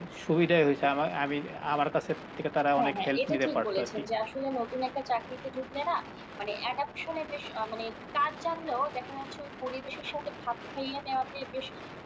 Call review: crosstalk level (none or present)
present